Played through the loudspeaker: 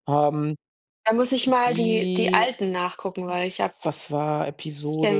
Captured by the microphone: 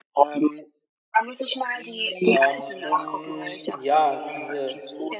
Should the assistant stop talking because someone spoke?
Yes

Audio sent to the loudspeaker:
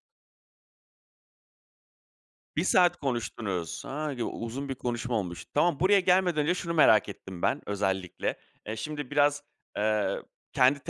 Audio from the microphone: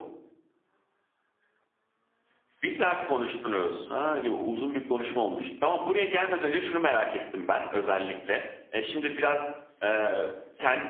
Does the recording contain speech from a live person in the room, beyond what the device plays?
No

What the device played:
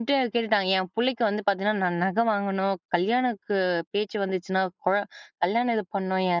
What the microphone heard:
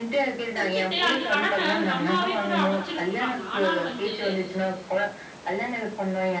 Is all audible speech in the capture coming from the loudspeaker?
No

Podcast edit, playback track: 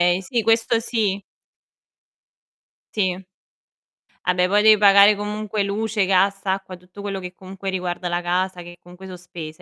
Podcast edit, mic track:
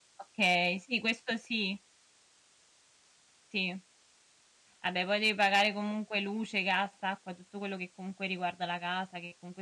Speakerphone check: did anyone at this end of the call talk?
No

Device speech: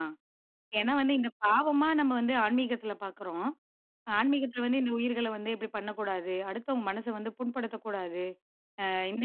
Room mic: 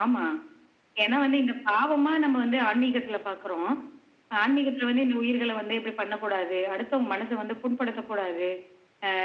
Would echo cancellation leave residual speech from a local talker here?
No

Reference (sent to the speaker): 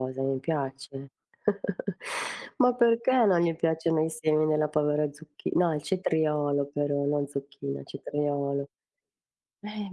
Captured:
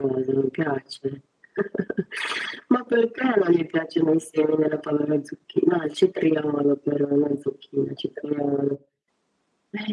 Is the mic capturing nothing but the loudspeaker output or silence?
Yes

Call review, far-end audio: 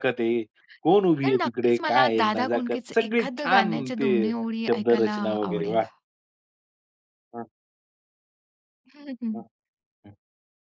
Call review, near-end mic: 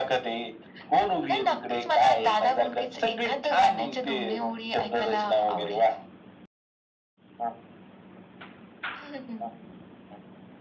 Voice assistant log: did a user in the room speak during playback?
No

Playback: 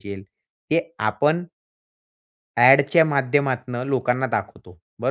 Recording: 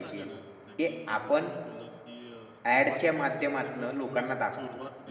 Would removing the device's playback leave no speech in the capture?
No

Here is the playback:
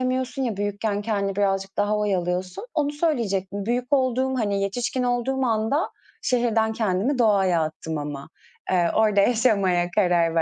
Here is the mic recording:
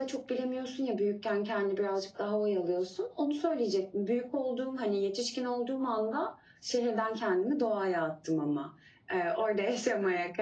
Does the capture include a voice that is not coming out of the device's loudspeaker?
No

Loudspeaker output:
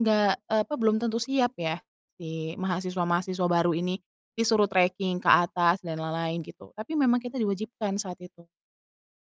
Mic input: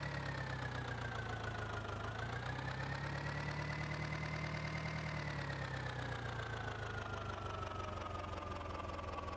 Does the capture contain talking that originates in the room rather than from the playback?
No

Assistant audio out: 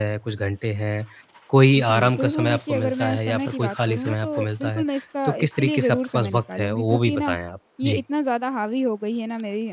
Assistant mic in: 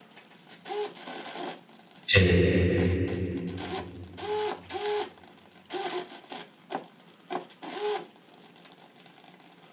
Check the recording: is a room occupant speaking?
Yes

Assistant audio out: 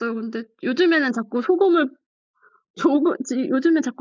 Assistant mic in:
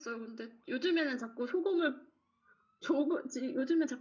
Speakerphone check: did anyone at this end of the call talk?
No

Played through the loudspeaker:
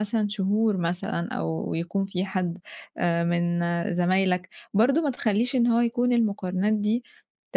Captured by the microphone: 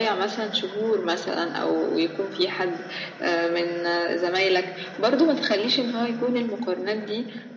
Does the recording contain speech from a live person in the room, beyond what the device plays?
No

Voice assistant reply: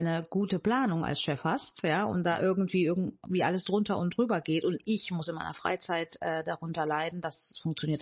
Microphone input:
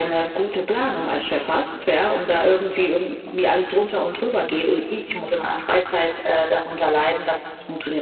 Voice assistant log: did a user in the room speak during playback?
No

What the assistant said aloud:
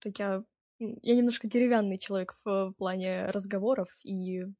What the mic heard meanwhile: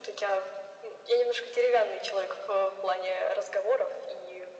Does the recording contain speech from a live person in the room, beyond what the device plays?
No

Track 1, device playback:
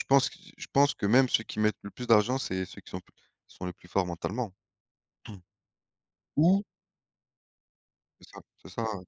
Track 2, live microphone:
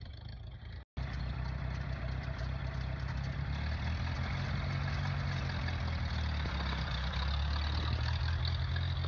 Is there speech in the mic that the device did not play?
No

